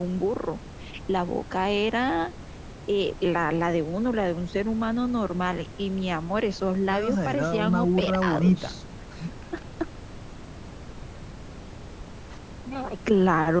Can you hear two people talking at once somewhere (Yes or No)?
Yes